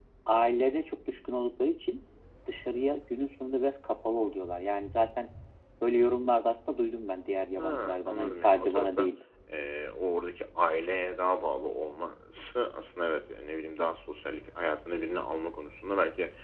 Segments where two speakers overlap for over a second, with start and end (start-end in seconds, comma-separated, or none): 7.6-9.1